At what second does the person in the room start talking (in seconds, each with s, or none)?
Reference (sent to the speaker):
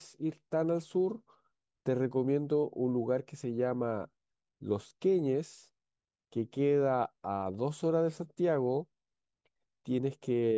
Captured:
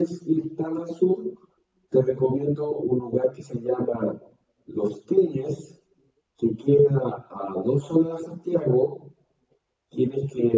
none